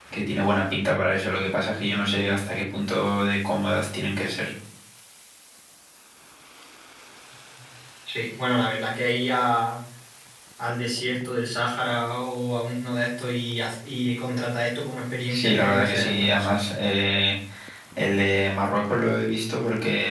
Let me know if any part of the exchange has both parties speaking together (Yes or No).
Yes